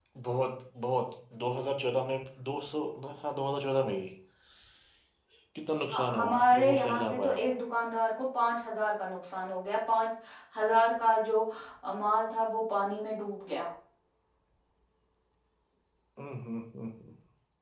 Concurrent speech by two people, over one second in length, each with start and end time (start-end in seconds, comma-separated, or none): 6.2-7.4